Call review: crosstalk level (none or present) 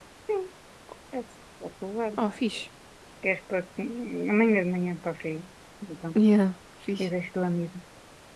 none